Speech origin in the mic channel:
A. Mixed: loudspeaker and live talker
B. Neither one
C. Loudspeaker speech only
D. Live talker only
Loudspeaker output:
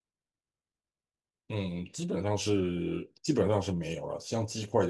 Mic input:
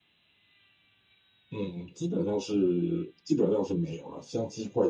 C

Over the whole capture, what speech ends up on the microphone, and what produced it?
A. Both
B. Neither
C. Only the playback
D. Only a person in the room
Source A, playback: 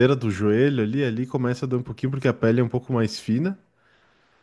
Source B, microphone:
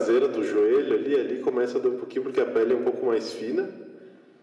C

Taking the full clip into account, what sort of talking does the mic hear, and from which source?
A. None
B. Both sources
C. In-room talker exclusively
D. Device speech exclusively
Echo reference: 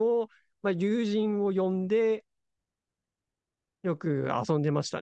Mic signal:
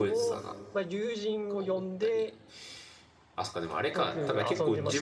B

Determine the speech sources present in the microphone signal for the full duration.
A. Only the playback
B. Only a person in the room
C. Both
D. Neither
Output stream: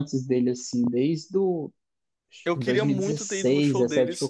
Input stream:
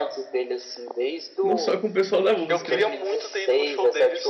C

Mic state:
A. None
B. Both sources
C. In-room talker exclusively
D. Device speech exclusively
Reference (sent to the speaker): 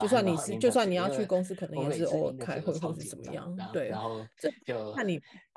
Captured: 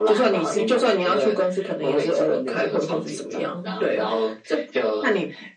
D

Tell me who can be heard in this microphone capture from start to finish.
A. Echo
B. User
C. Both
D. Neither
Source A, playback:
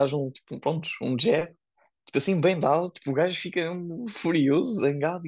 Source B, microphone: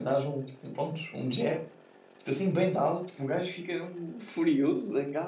A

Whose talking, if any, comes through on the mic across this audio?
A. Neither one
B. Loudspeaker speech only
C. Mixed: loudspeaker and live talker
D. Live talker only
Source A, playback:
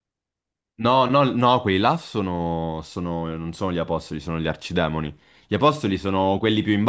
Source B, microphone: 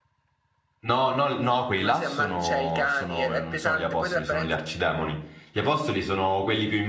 C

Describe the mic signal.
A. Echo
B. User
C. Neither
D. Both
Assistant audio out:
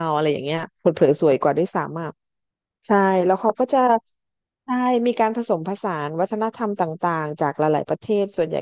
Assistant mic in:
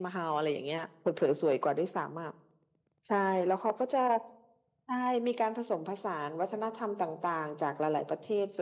A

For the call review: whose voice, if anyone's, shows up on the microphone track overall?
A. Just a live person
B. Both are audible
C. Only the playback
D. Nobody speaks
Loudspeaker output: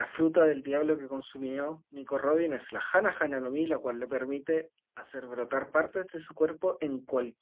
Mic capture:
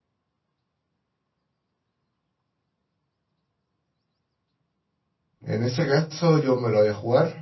A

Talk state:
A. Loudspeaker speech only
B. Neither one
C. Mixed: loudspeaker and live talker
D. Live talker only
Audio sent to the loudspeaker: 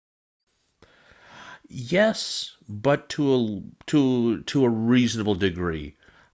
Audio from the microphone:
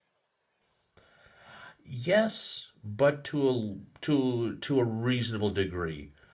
A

